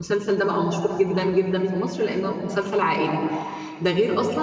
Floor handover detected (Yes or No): No